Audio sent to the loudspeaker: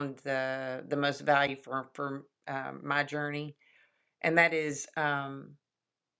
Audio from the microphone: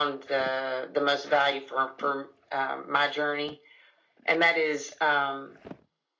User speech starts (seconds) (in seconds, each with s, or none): none